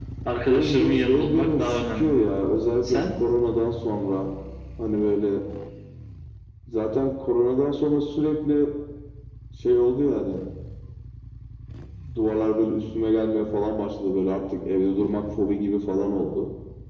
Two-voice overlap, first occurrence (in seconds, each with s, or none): 0.5 s